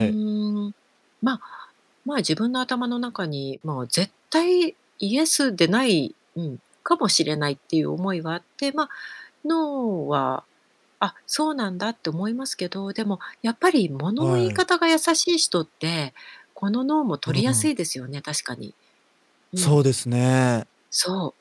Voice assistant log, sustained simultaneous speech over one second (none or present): none